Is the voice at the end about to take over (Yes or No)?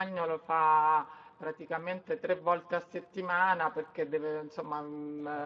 No